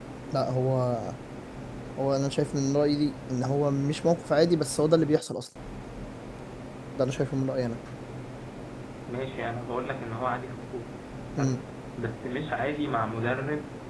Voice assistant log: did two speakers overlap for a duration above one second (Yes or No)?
No